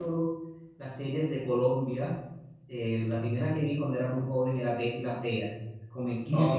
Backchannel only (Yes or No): No